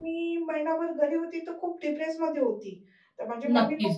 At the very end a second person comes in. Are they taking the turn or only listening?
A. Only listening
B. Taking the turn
A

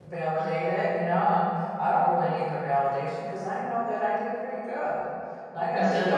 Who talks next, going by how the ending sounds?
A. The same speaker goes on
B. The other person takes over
A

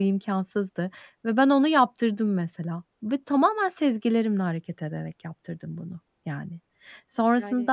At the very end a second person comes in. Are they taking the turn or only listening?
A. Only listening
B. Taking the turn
A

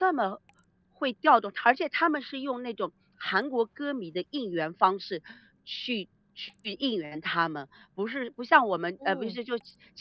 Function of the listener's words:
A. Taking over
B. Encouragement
B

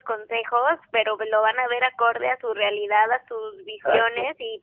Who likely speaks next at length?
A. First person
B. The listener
A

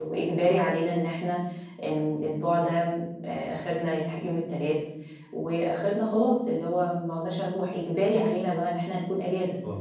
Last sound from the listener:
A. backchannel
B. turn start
A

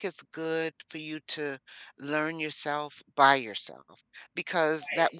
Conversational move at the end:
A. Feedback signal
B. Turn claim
A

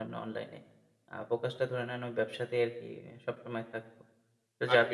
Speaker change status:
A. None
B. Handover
A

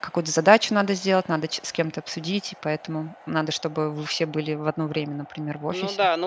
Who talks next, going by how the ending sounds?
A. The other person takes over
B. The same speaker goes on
A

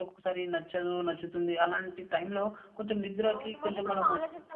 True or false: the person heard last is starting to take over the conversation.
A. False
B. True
B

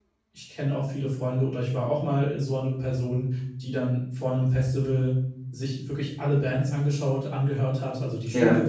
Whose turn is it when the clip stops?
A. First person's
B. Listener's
A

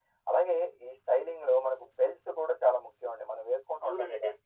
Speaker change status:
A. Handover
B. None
A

